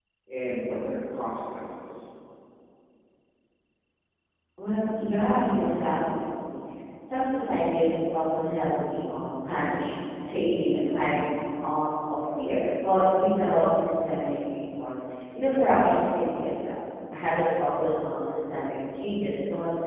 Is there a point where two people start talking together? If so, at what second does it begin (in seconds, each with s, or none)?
none